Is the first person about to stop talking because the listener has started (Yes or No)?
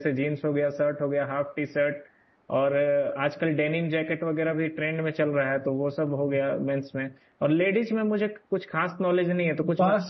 Yes